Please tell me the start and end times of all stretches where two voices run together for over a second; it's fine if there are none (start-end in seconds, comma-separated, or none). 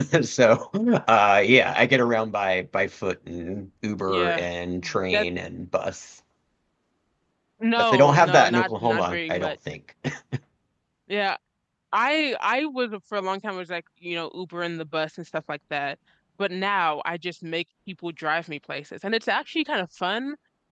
7.9-9.5